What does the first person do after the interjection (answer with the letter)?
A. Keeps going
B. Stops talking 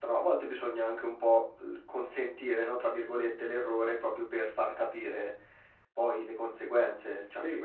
A